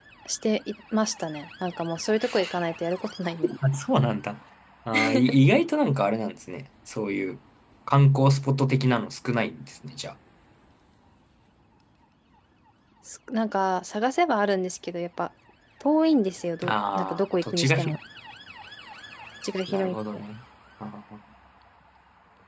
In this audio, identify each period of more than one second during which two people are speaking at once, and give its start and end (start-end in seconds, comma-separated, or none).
16.7-18.0